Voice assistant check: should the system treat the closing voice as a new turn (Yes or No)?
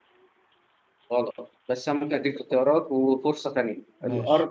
No